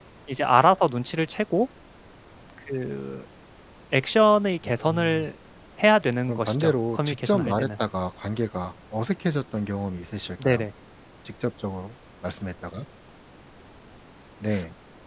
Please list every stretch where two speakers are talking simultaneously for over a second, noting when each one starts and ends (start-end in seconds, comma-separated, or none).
6.3-7.7